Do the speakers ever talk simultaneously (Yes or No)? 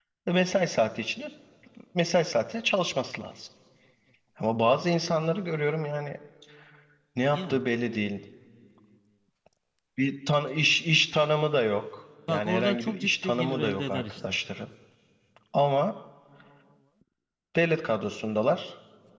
Yes